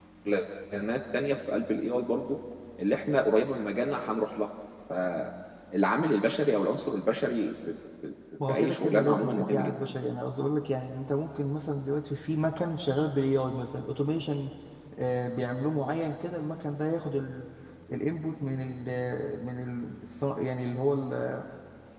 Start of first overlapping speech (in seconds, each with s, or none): 8.4 s